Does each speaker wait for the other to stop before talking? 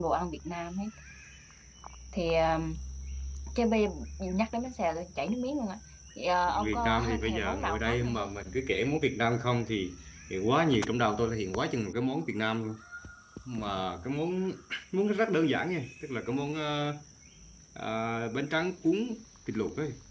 No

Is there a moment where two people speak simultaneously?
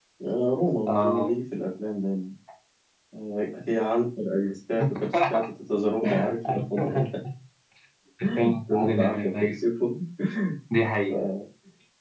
Yes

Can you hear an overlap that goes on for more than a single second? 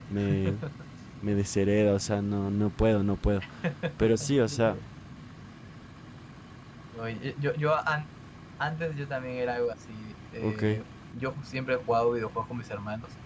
No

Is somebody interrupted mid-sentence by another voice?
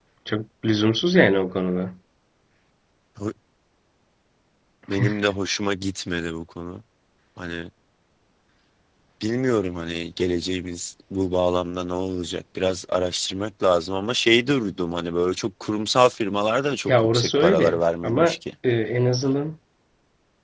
Yes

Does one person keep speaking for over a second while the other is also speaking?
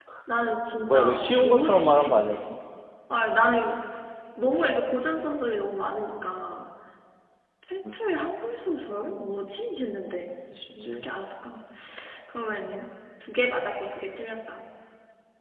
Yes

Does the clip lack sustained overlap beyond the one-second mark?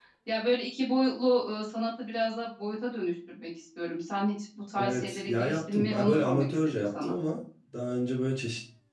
No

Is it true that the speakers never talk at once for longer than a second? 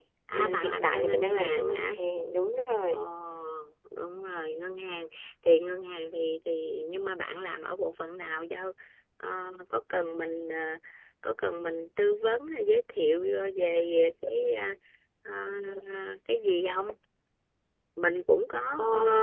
No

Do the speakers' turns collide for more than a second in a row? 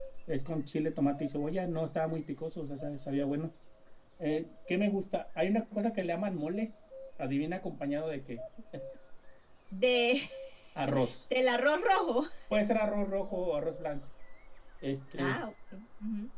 No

